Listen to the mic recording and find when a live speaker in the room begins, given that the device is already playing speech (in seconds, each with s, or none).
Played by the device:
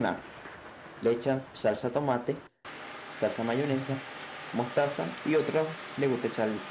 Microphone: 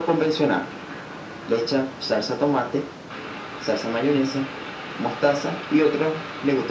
none